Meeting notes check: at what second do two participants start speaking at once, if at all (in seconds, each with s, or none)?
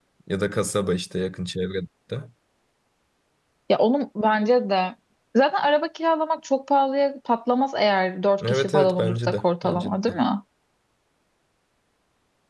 8.4 s